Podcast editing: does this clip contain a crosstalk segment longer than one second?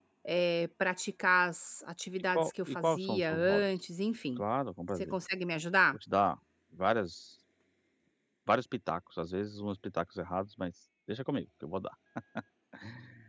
Yes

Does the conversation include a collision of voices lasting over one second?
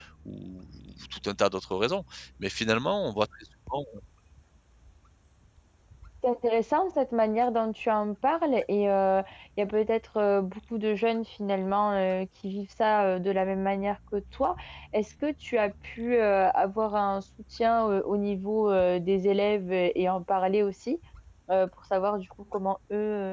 No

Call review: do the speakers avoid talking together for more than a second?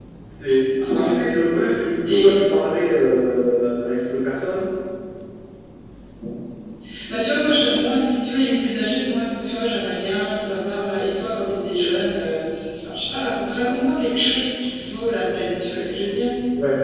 Yes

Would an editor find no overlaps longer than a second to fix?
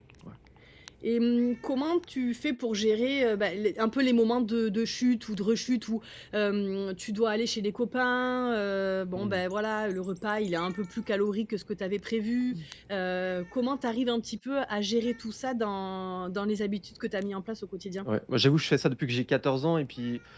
Yes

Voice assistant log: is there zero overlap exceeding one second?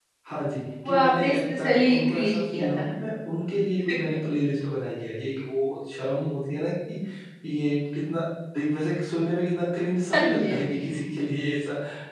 No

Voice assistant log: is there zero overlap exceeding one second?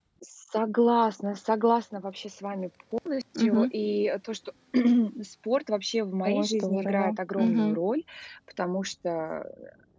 No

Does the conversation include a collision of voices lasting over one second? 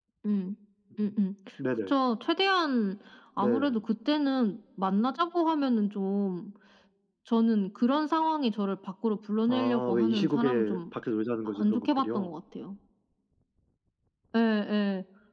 Yes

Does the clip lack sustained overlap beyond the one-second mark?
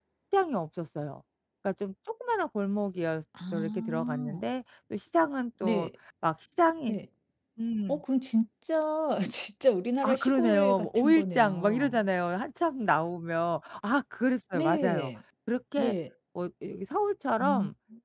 No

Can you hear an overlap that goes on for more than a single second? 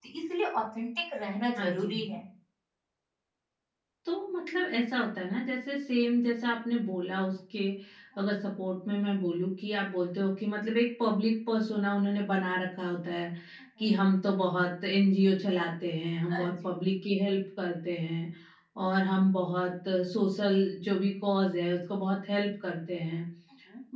No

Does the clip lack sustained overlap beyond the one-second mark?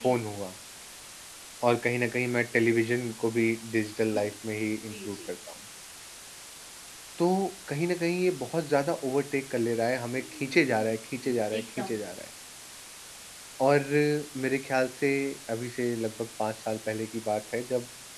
No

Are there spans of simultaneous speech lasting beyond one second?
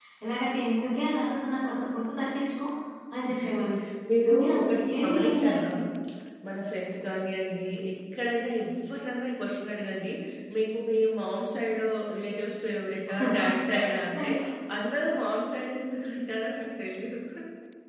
Yes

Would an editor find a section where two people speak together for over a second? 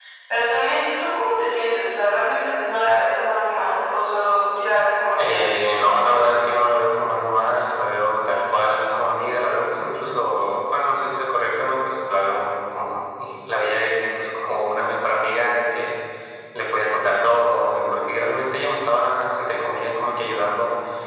No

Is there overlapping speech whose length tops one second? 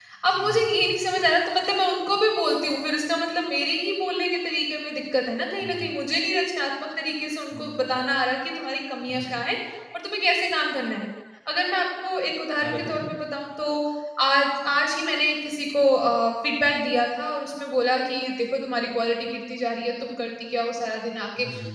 No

